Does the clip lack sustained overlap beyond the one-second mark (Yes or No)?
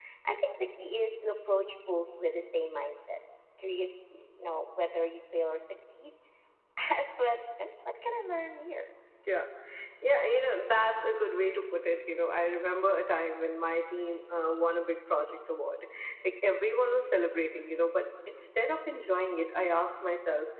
Yes